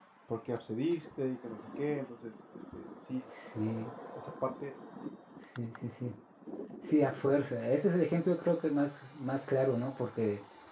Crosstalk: none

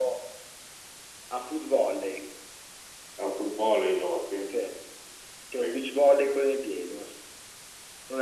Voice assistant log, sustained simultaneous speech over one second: none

